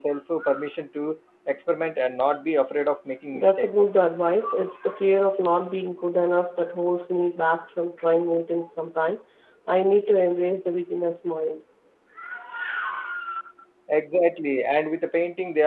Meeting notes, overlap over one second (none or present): none